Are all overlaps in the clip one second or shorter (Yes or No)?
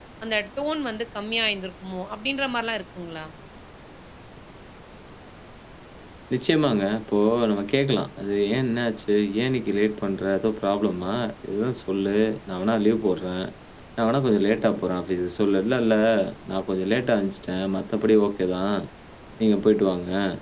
Yes